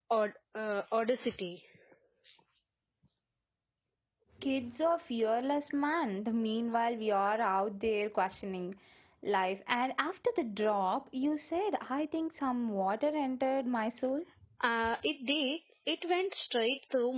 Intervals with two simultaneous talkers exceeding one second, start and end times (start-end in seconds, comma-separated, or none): none